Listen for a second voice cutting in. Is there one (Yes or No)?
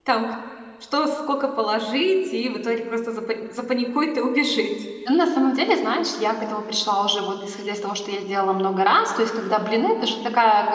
No